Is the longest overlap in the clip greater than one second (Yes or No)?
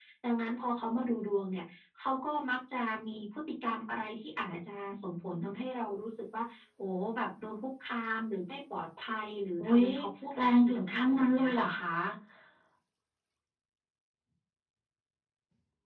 Yes